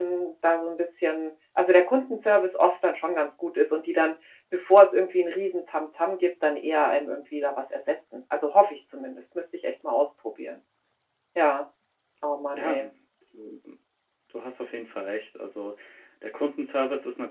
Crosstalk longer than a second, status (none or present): none